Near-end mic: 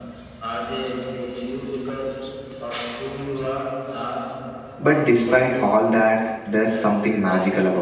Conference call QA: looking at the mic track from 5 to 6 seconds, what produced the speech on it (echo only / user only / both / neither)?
both